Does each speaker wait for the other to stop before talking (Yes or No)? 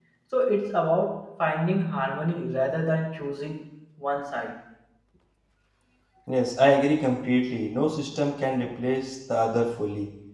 Yes